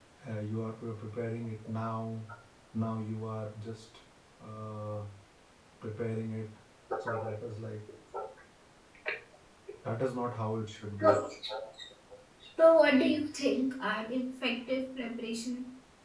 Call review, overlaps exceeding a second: none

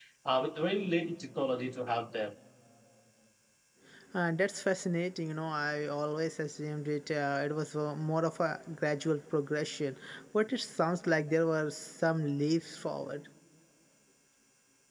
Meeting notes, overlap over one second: none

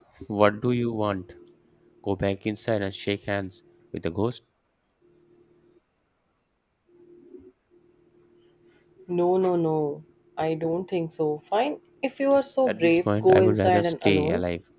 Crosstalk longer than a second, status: present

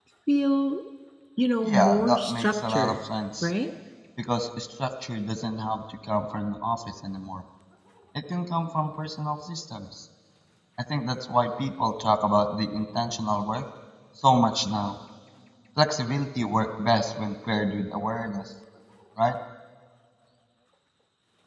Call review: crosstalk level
present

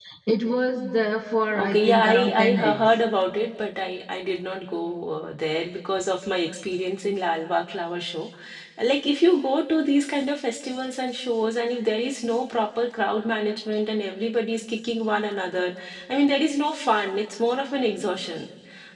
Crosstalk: present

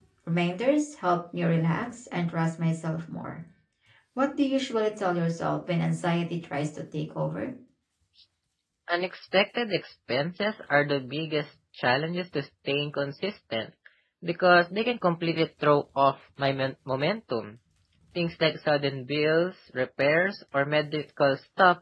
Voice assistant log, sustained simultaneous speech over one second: none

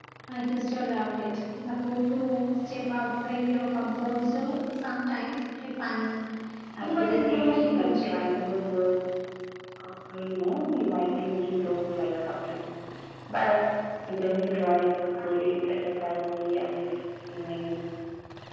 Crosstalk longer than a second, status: present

